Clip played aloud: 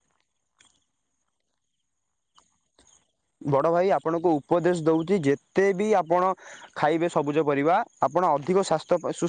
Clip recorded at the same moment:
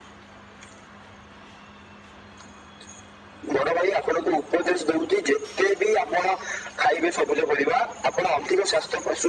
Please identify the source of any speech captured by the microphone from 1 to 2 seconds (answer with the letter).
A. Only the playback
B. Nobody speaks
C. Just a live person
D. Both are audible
B